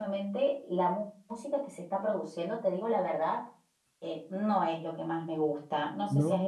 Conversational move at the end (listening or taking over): listening